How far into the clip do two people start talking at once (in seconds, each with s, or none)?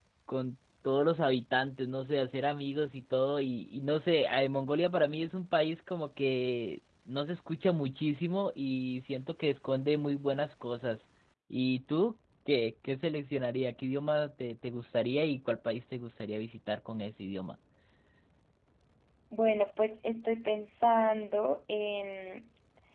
none